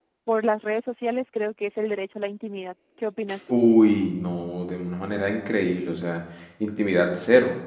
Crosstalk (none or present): none